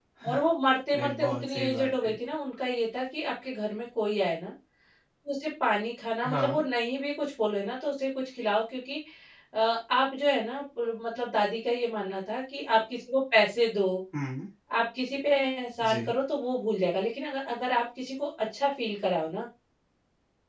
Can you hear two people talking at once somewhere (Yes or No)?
Yes